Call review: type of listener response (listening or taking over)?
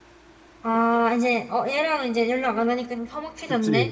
taking over